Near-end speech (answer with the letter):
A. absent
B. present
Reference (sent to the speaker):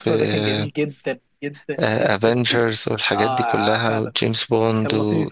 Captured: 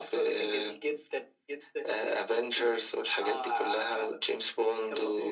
A